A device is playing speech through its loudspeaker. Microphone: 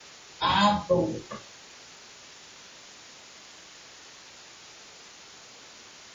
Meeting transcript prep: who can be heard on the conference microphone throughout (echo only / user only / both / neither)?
user only